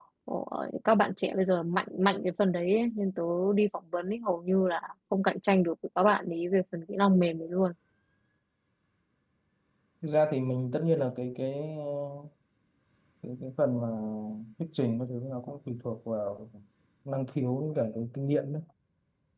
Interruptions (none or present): none